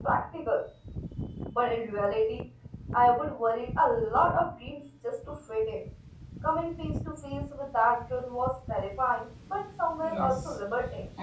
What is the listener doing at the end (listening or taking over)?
taking over